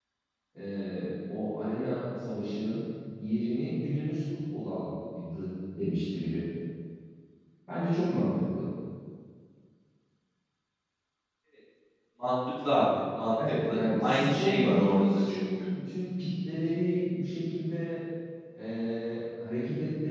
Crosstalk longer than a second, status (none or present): present